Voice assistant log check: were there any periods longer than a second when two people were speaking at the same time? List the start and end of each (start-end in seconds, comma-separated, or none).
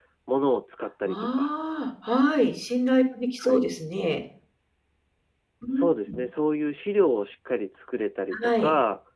none